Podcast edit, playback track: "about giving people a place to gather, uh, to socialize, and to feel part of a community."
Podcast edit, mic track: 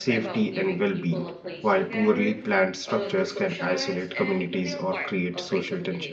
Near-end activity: present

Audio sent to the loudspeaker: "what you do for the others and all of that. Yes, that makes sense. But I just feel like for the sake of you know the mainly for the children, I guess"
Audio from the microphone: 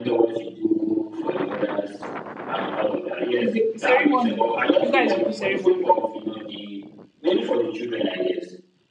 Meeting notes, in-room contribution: present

